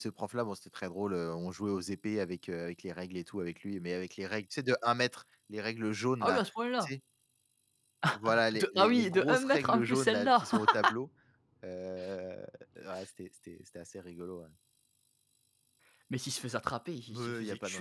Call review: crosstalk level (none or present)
present